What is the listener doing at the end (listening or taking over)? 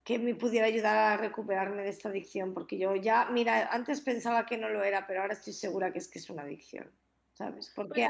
listening